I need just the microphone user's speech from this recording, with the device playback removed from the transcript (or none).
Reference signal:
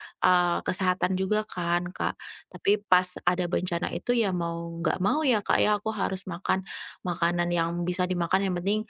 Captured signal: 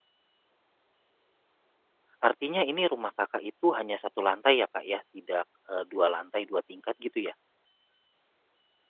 Artinya ini rumah Kakak itu hanya satu lantai ya, Kak, ya? Tidak, eee, 2 lantai, 2 tingkat gitu ya?